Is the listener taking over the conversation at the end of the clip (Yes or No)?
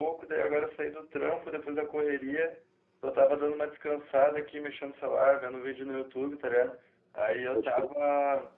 No